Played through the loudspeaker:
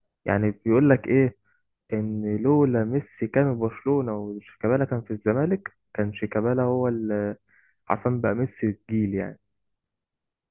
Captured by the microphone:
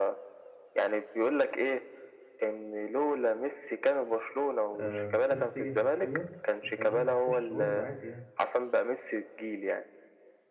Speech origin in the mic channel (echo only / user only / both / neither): both